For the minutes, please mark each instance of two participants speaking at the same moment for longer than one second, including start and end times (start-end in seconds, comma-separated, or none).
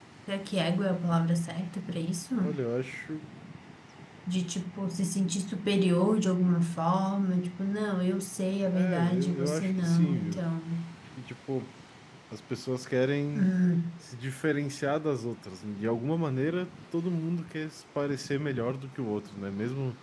8.7-10.4